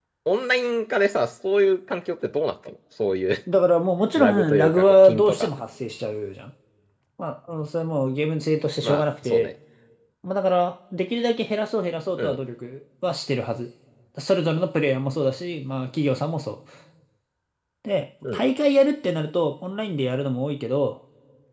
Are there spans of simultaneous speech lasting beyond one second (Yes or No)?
Yes